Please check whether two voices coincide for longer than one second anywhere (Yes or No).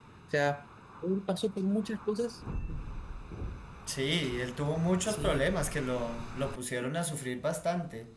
No